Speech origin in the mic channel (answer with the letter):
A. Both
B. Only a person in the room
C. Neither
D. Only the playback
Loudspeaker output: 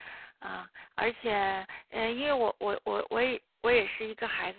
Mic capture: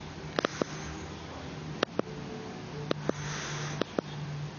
C